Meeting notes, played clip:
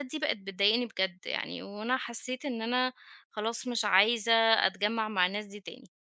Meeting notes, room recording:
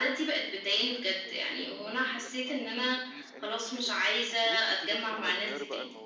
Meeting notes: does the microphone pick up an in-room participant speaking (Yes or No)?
Yes